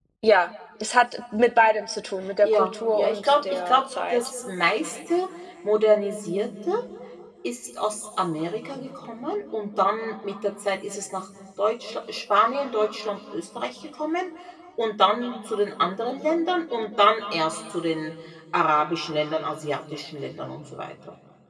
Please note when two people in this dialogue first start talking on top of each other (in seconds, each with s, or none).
2.4 s